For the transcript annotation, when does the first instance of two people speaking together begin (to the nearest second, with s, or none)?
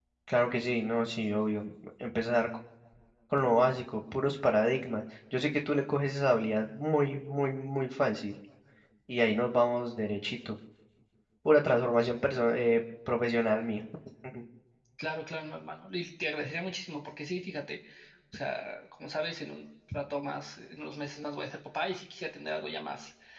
none